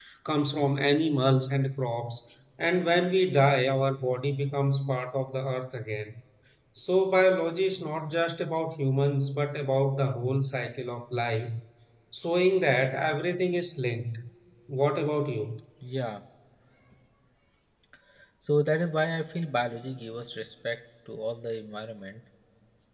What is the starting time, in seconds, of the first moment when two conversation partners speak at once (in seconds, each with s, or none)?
none